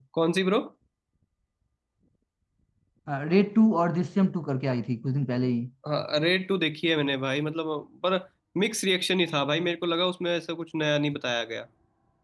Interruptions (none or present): none